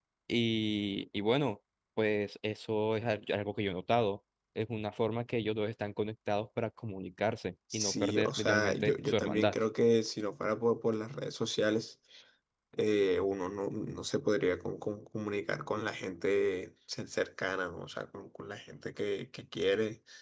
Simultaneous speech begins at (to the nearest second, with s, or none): 8 s